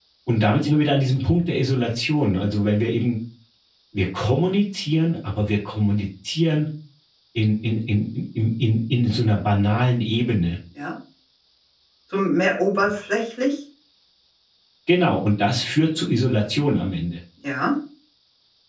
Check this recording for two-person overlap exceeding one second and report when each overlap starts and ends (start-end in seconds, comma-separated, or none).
none